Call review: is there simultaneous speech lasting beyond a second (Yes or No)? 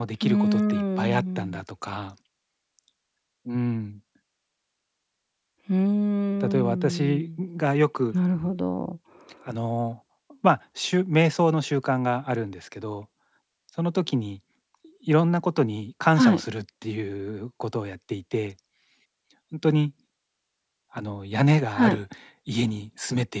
Yes